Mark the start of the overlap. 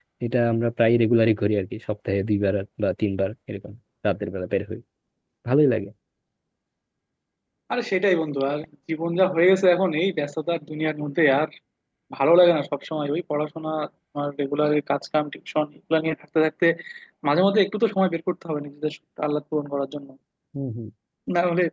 none

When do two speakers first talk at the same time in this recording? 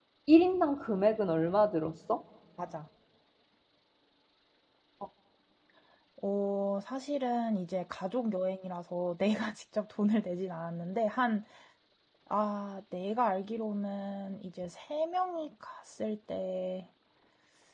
none

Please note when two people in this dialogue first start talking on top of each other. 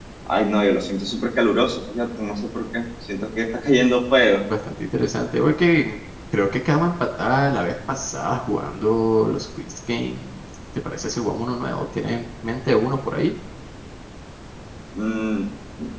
none

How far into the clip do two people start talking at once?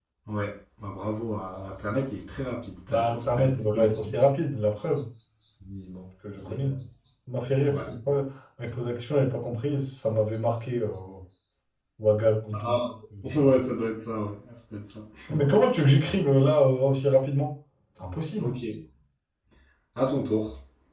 2.9 s

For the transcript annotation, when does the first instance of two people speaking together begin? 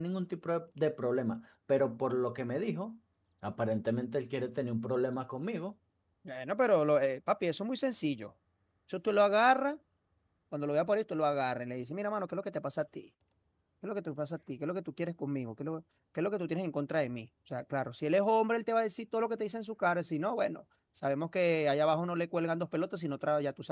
none

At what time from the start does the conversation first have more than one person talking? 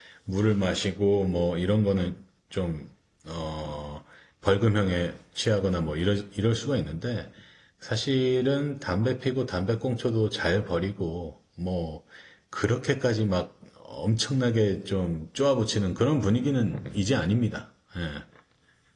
none

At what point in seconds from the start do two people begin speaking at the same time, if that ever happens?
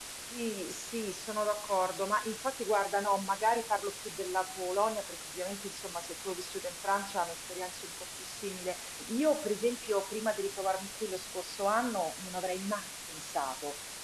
none

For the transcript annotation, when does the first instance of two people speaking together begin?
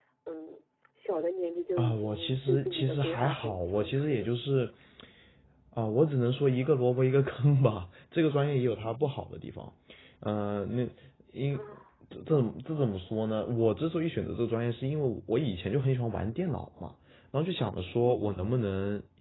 1.8 s

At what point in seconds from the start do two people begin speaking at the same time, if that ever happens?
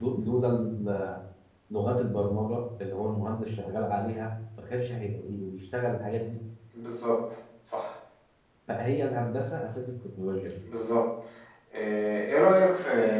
none

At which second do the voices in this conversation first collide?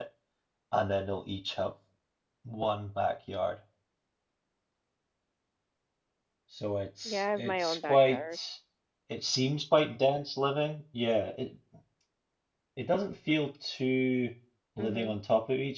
7.0 s

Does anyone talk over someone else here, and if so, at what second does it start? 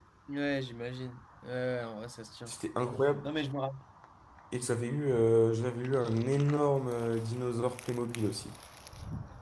none

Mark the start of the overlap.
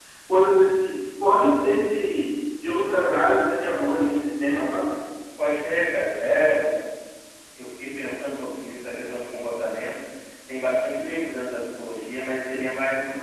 none

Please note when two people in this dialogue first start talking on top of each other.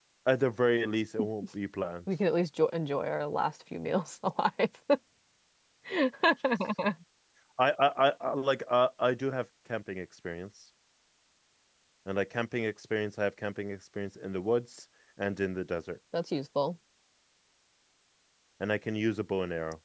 none

